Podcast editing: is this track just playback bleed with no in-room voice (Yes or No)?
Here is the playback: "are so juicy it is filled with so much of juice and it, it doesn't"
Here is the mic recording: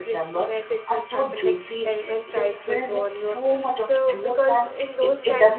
No